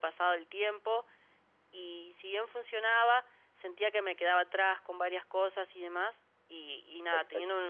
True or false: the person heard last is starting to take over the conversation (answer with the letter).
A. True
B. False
B